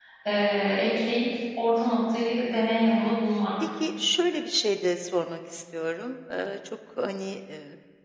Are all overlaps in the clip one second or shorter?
Yes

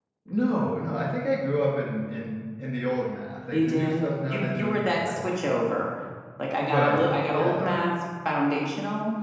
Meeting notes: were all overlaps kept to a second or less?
No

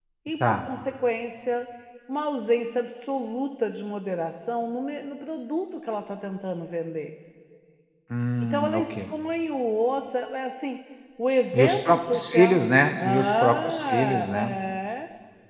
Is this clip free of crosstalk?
No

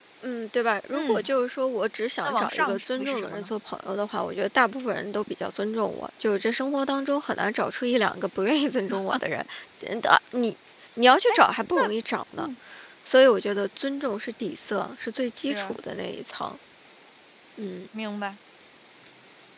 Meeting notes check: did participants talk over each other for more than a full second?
Yes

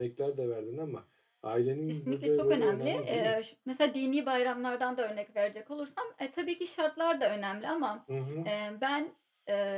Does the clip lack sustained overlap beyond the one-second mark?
No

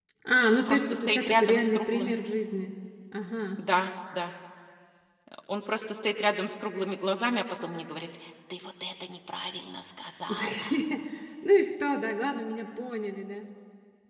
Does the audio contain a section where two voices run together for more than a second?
Yes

